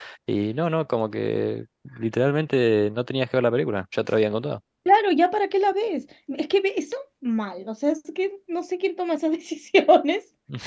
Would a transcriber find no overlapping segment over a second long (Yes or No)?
Yes